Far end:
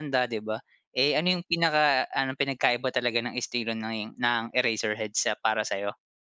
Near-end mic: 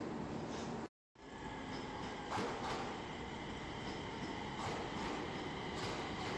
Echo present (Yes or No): No